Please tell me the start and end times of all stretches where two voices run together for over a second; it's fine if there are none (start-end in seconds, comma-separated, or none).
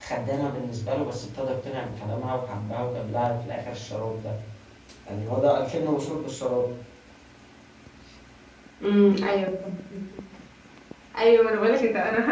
none